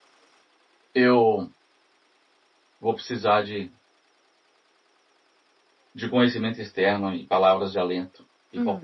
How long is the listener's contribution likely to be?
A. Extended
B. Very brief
B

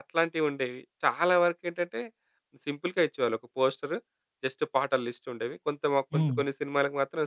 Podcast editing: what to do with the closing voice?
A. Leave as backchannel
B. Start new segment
A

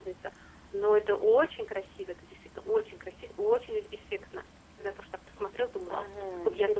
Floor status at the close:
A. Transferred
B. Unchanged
A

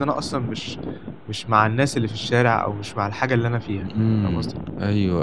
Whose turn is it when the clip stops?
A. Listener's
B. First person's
A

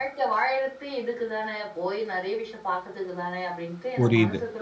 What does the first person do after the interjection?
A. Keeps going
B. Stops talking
B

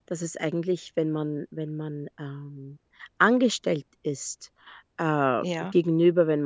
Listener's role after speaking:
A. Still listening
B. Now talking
A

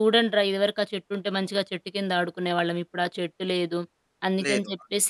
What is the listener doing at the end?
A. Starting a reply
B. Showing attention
B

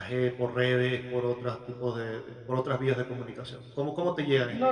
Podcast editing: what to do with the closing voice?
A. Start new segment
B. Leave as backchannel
A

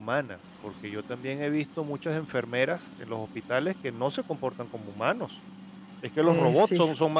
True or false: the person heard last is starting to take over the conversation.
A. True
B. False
B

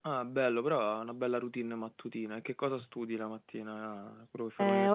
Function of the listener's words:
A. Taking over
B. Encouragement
A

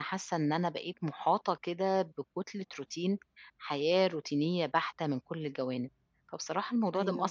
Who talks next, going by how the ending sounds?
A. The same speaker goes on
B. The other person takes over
A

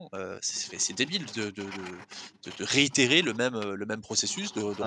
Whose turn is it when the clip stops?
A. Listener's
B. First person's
A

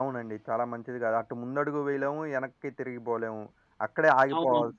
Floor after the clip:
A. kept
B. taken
A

